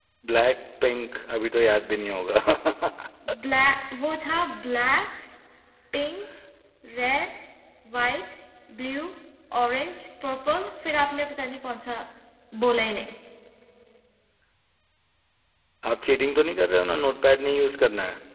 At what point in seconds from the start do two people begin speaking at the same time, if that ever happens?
none

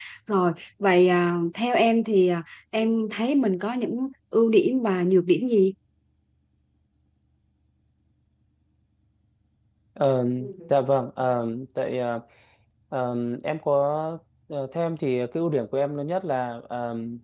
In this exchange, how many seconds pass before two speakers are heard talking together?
none

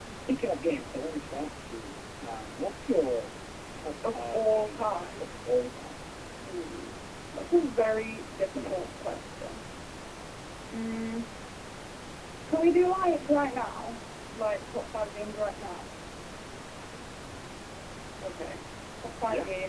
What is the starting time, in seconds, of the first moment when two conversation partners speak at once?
4.0 s

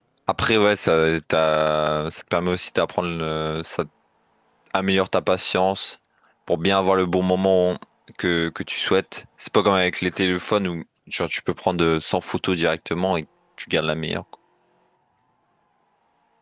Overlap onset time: none

